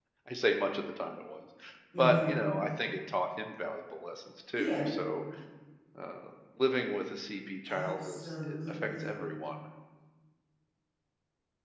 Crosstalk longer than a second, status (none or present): present